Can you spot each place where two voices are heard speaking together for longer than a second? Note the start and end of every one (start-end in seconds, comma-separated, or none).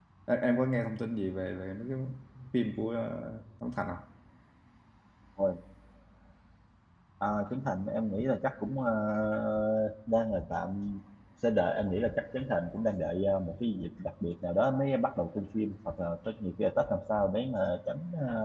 none